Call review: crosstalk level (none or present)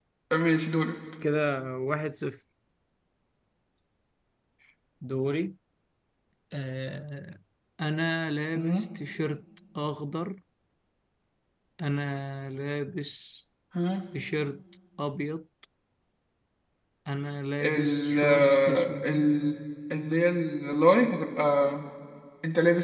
present